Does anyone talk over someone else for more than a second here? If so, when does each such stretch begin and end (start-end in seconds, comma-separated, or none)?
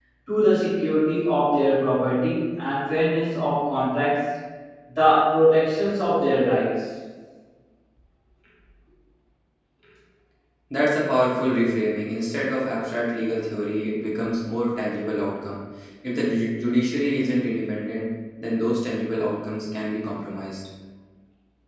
none